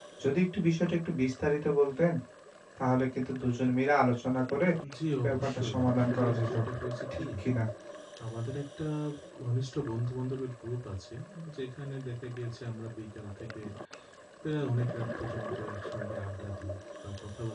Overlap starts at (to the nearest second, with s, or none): 5 s